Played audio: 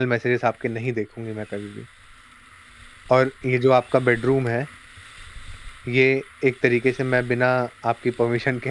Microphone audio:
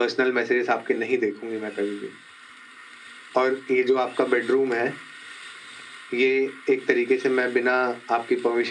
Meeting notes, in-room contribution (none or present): none